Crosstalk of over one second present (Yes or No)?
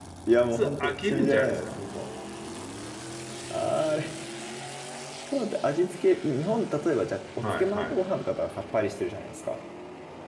Yes